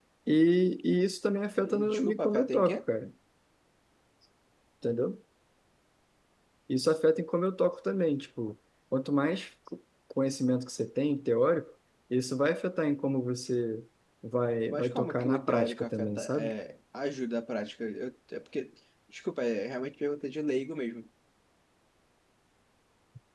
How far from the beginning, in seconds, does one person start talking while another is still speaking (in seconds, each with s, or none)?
1.6 s